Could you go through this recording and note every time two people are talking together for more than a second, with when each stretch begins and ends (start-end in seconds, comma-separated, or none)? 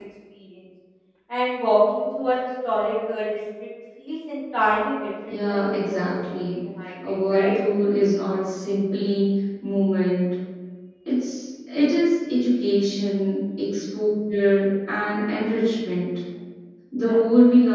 5.3-6.5